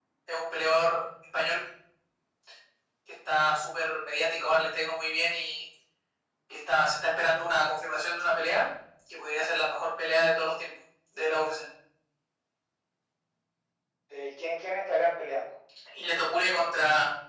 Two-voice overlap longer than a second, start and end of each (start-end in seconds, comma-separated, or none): none